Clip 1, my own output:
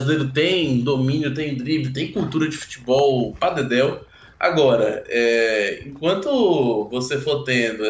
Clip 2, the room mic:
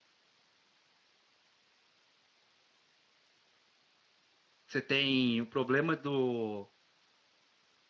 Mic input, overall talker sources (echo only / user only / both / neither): user only